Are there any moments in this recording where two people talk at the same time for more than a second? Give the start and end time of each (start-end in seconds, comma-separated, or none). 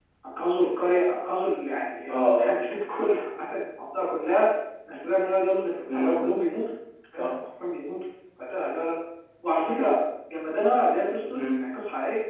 none